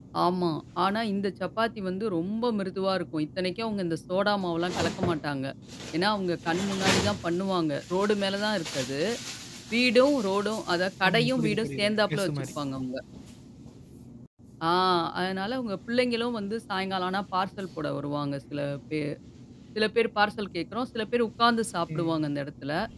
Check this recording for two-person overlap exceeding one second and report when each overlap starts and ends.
11.1-12.5

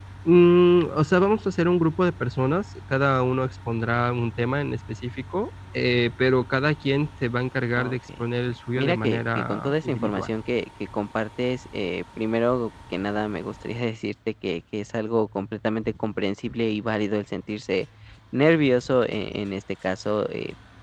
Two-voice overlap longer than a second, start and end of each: 8.8-10.3

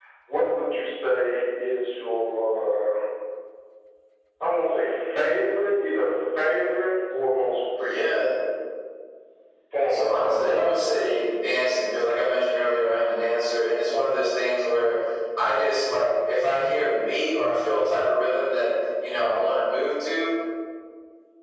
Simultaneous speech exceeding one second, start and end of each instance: 9.9-11.2

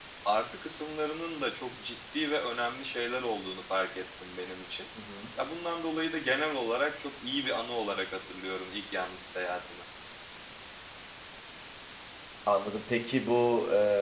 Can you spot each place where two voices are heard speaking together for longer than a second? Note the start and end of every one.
none

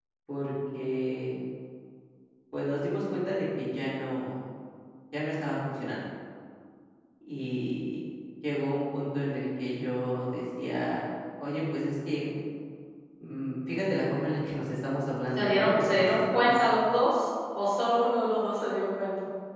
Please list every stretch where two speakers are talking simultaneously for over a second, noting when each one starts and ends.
15.4-16.6

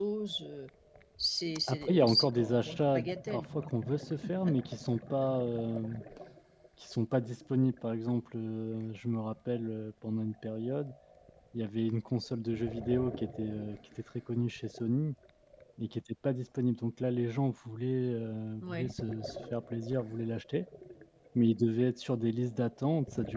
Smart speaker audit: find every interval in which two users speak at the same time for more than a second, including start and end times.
1.7-3.7

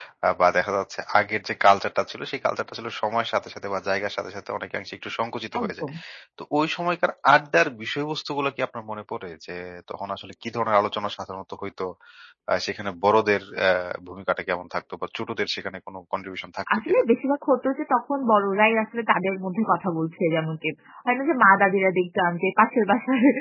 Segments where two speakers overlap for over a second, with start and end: none

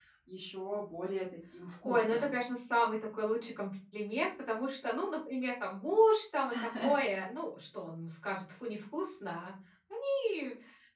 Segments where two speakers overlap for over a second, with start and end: none

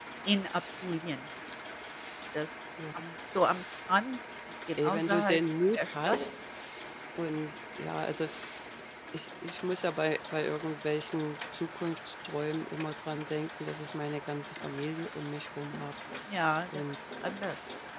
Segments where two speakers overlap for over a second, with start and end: 4.8-6.2

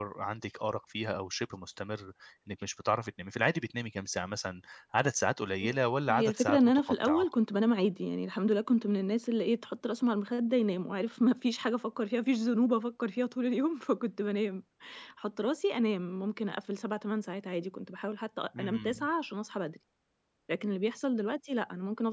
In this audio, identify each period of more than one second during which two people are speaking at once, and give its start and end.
5.6-7.3

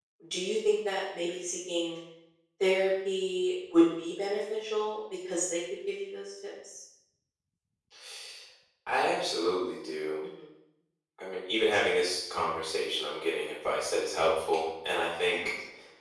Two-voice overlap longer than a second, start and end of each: none

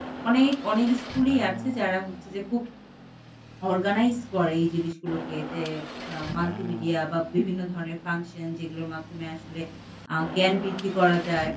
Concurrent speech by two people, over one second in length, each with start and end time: none

